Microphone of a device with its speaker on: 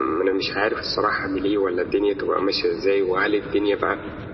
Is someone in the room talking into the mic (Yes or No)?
No